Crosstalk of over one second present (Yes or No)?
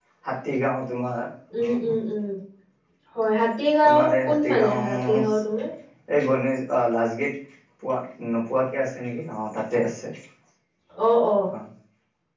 Yes